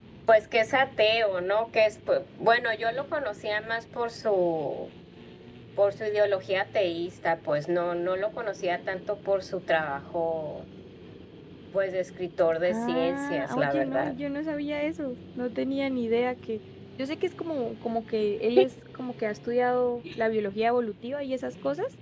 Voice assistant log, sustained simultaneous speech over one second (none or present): present